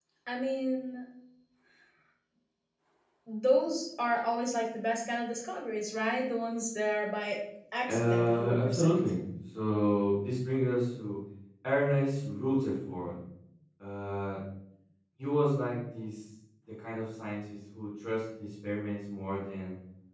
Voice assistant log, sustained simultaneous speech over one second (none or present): present